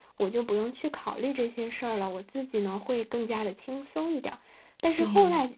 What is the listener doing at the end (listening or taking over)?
listening